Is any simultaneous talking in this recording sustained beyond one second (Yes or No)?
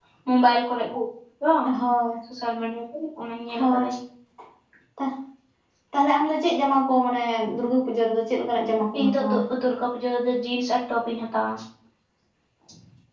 No